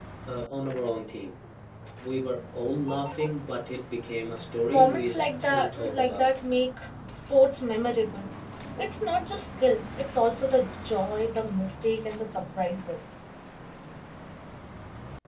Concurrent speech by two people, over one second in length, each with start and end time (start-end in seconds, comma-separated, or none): 4.7-6.3